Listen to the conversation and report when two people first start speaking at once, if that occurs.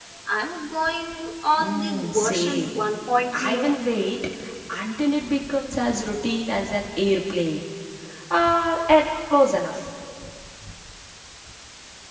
1.6 s

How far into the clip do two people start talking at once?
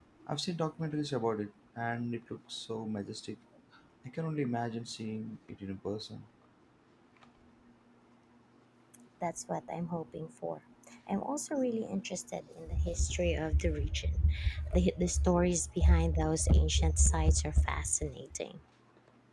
none

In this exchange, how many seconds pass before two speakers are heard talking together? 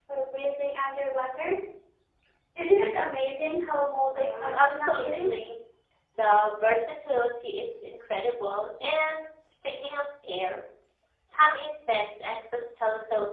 4.1 s

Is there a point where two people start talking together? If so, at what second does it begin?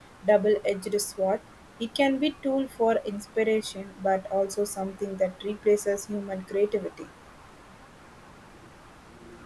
none

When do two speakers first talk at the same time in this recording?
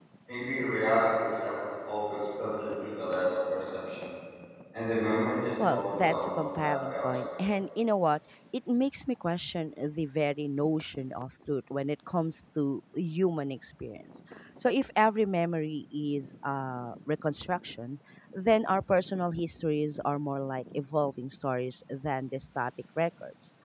5.6 s

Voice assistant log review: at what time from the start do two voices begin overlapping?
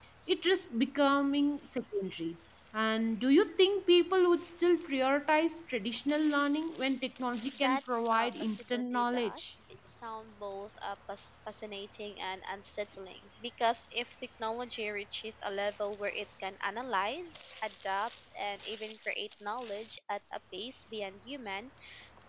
7.5 s

